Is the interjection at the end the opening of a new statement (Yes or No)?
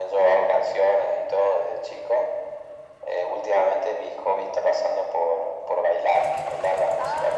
No